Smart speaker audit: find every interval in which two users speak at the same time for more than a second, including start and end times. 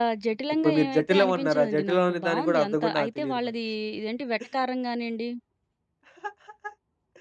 0.6-3.5

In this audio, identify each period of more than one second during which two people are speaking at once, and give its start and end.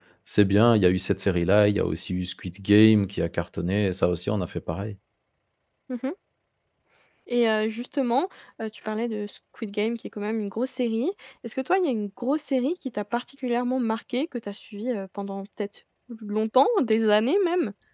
none

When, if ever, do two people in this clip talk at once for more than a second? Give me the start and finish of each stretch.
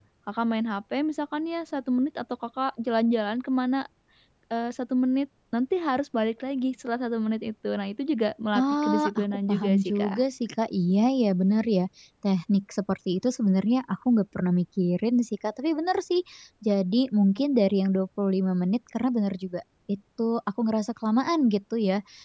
8.6-10.2

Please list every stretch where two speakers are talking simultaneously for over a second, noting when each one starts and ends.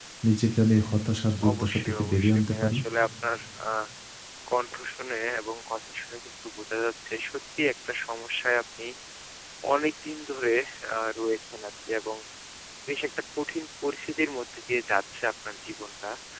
1.5-2.8

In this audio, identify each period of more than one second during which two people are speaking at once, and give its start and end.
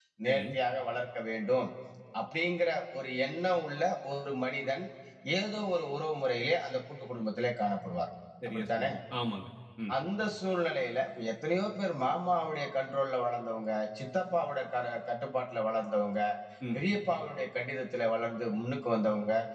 none

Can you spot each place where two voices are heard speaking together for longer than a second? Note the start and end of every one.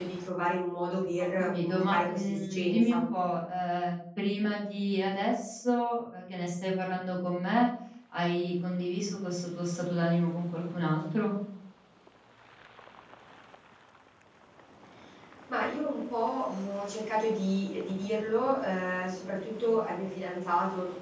1.2-3.0

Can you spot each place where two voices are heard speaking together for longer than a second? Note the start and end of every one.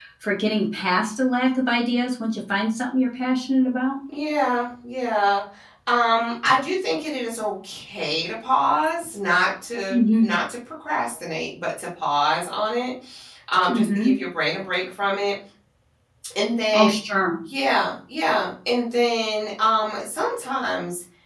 none

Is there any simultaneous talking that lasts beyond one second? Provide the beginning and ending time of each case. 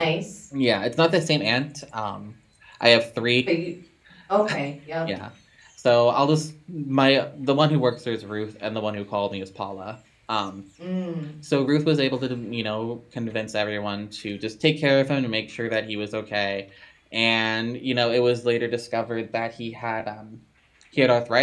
none

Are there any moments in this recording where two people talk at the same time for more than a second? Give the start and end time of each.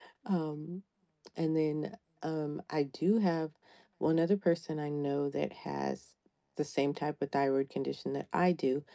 none

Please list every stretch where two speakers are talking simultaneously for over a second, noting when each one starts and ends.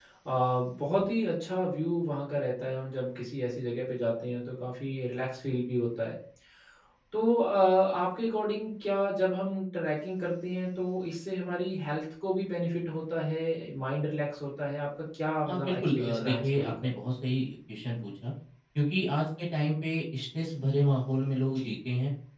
15.5-16.7

